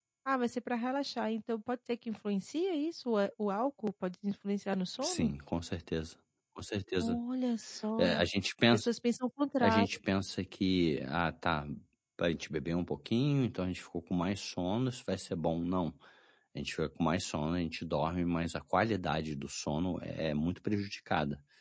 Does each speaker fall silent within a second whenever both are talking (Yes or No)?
Yes